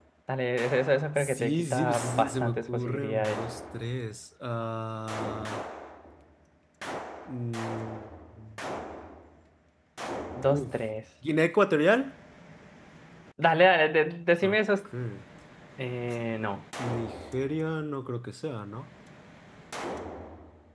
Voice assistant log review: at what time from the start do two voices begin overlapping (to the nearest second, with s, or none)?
1 s